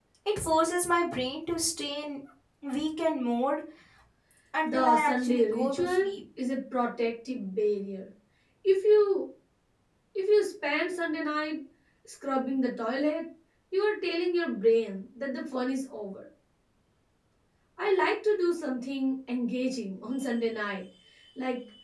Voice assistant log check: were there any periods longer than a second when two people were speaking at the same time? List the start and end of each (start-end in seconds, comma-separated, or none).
4.6-6.1